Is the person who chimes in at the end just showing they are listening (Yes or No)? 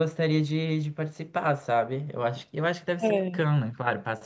Yes